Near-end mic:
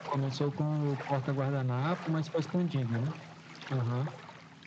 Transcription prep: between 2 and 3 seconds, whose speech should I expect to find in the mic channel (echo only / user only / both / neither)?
echo only